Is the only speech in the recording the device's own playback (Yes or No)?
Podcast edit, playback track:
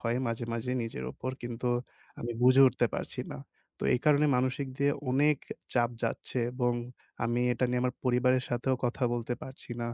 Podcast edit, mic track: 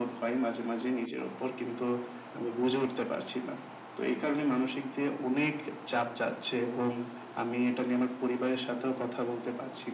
Yes